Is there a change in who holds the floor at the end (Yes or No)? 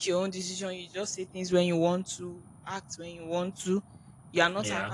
No